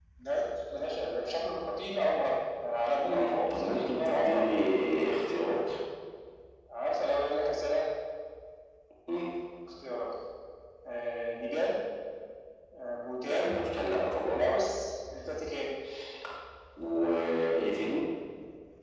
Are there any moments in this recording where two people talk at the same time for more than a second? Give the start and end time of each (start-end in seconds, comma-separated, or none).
3.0-4.5